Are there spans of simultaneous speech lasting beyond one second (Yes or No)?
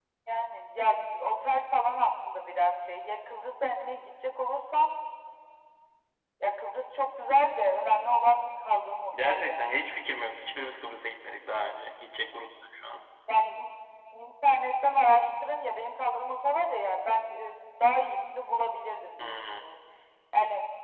No